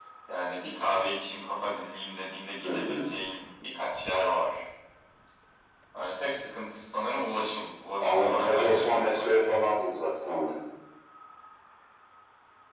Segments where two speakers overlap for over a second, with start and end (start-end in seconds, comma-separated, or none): 8.0-9.2